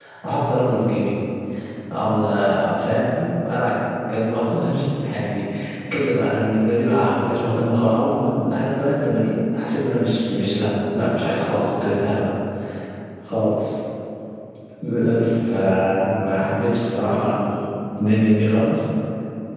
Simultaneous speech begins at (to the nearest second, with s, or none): none